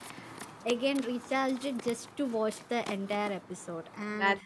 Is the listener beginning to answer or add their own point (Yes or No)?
No